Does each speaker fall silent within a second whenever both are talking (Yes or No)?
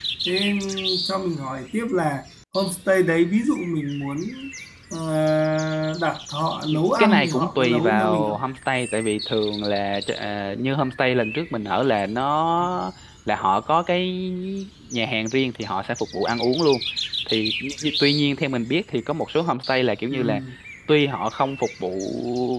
No